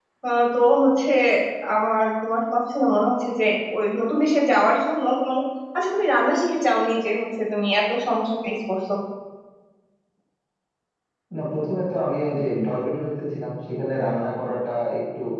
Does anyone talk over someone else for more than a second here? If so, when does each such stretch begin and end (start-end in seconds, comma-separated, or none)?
none